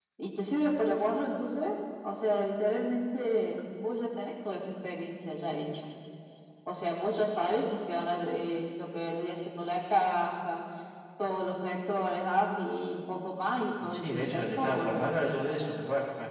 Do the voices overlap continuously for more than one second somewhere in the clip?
Yes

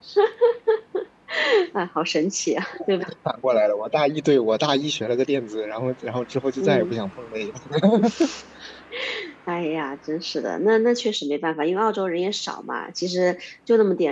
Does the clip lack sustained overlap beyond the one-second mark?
Yes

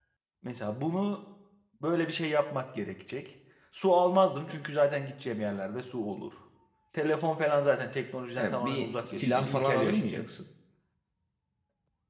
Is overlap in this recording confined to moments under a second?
No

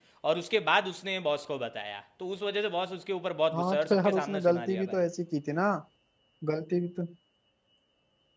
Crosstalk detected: Yes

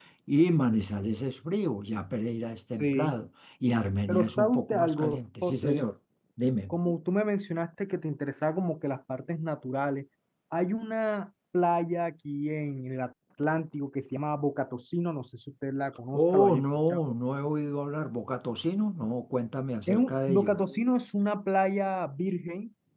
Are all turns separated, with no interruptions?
No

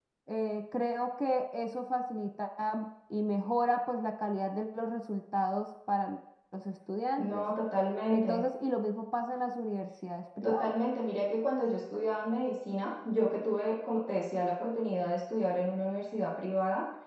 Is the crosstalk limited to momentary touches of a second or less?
Yes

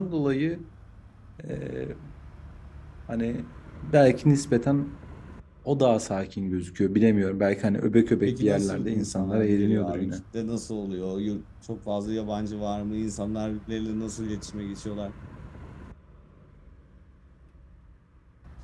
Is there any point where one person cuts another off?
Yes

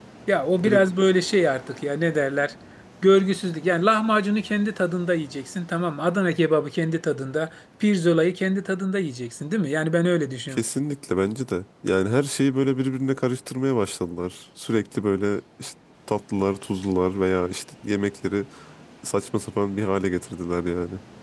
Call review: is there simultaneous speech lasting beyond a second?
No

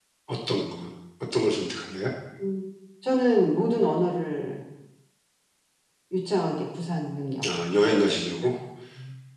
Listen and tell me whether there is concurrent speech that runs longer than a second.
No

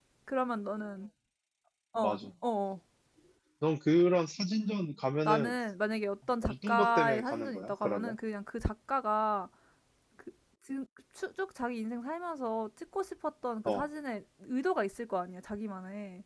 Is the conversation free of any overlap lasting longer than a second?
No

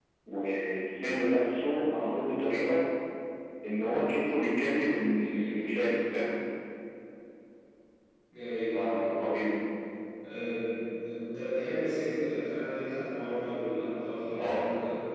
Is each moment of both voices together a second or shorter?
Yes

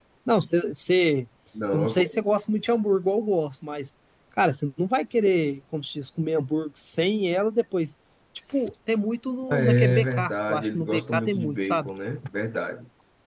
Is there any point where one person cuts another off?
Yes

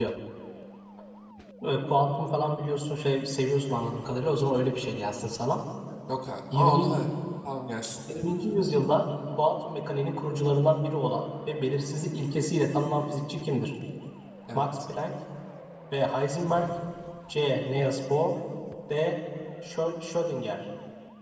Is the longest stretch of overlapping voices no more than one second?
Yes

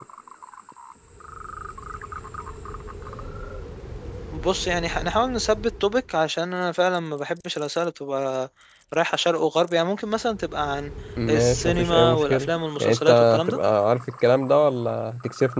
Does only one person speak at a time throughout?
No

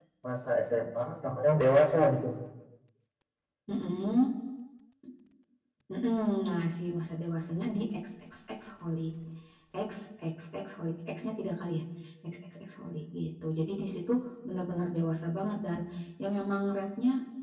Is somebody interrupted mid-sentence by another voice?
No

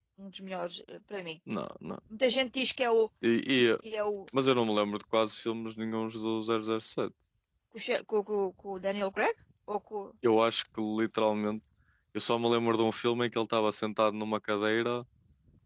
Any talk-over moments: No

